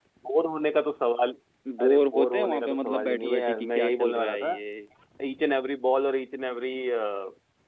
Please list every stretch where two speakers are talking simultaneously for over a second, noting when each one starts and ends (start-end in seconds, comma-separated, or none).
1.8-4.5